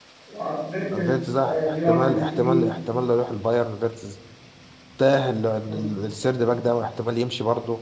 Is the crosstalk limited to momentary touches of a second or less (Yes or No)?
No